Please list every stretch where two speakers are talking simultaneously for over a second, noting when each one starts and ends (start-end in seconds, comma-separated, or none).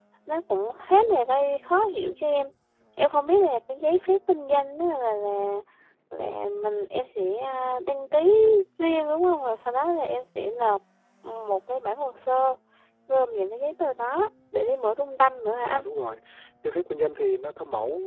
none